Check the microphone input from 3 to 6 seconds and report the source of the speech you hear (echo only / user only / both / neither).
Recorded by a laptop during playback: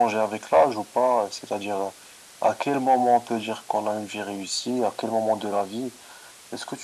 echo only